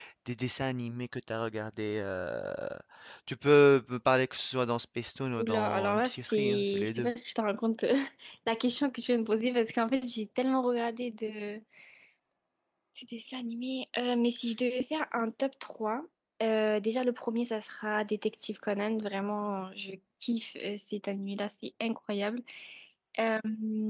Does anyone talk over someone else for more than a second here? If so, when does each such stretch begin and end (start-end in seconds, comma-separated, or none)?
5.4-7.1